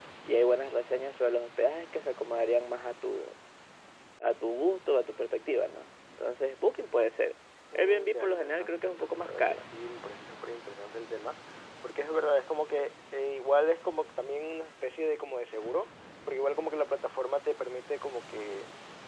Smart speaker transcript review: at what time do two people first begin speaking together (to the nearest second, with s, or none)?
8 s